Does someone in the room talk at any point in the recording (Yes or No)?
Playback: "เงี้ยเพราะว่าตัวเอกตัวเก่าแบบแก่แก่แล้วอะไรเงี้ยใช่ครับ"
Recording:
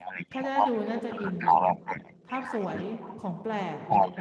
Yes